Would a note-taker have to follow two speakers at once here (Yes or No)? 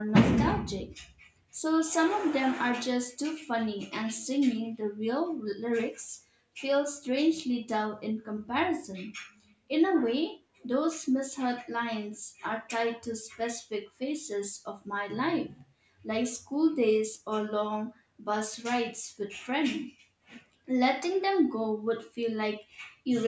No